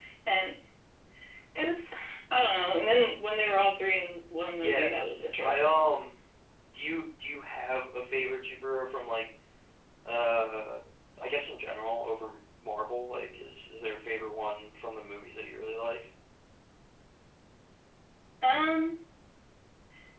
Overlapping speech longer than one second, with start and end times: none

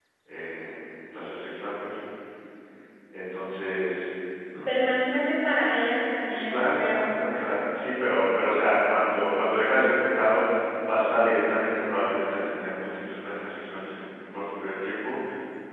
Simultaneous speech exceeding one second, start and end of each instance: 6.3-7.6

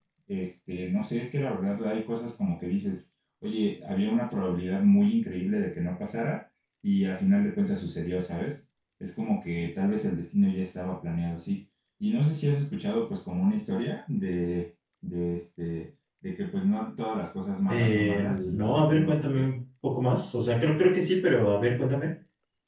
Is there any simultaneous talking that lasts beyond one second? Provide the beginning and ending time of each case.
17.7-19.3

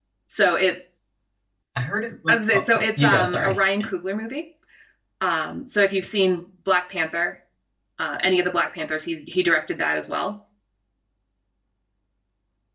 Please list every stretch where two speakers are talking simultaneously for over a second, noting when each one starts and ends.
2.3-3.6

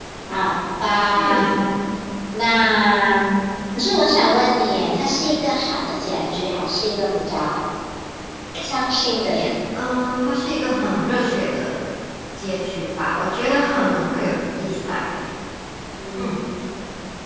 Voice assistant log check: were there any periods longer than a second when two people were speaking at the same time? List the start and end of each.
none

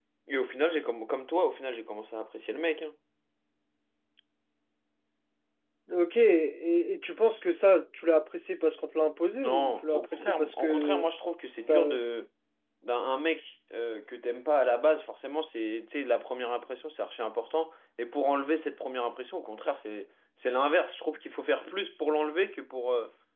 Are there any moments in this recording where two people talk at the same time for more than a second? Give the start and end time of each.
9.4-11.0

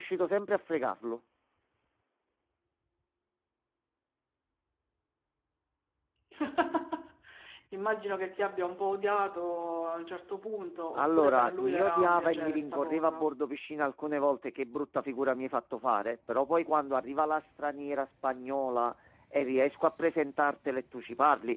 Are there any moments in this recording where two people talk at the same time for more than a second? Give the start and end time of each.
11.0-13.2

